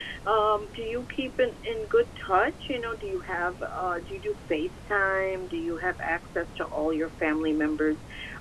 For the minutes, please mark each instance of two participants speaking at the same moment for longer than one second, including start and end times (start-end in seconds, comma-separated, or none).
none